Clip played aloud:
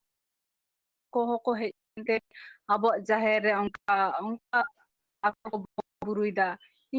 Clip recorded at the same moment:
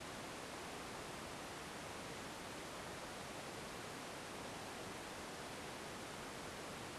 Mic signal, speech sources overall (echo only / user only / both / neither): neither